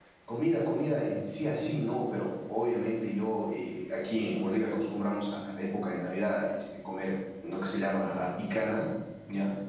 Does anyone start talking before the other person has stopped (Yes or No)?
No